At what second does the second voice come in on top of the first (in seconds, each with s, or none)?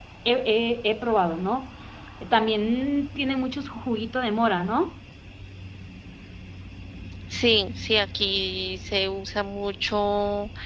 none